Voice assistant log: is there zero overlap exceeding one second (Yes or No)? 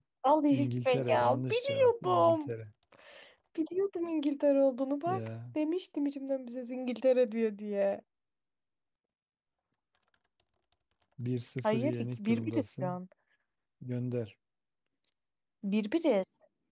No